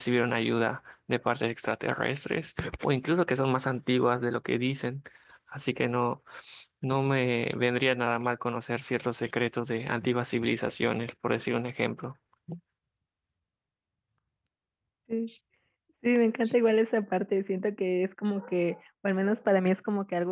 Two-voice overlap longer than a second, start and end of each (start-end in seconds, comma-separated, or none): none